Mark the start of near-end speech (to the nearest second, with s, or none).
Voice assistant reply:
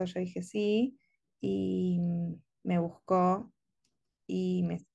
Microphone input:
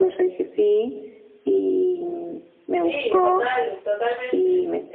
3 s